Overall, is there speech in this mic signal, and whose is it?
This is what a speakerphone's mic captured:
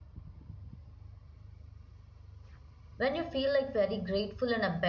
user only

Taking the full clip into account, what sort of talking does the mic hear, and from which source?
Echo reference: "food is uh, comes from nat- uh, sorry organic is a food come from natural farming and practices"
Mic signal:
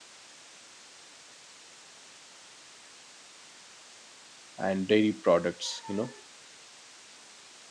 user only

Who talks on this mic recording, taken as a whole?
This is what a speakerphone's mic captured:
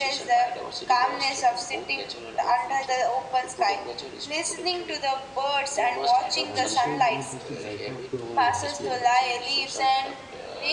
both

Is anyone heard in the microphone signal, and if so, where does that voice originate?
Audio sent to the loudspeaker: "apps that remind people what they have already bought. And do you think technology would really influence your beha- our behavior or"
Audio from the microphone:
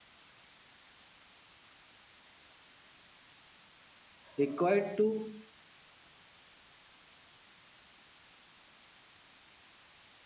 user only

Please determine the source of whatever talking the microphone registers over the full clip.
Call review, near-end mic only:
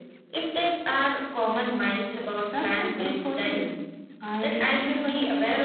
echo only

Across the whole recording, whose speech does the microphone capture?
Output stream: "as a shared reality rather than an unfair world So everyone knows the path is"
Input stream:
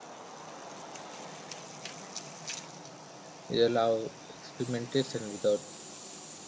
user only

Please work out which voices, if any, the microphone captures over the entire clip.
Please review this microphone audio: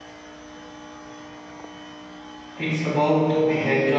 user only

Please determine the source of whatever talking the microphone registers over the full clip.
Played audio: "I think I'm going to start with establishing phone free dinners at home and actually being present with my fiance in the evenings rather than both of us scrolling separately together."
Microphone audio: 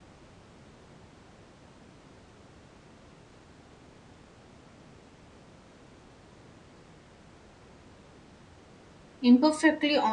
user only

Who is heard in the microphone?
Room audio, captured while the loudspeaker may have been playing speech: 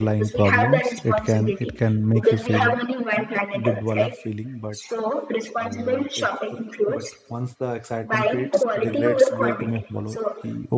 both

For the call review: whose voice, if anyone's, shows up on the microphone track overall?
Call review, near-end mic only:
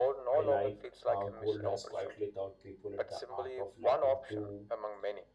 both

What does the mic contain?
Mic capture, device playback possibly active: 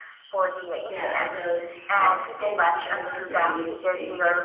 both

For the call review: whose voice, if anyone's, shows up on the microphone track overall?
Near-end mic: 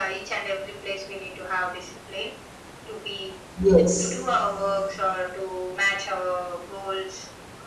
both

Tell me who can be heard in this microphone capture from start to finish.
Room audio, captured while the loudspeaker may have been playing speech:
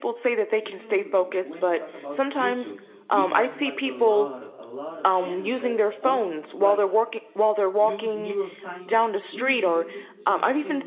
both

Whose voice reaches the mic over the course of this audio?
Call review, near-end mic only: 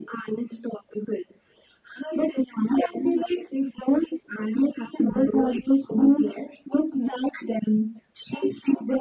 echo only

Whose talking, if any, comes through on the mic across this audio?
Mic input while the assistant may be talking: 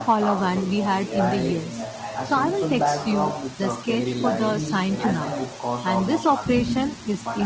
both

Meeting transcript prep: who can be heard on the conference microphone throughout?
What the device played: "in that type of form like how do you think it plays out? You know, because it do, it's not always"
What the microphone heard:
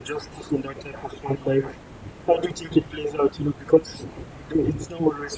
echo only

